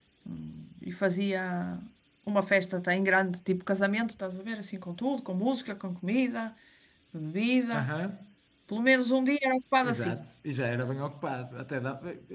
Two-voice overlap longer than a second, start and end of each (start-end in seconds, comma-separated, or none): none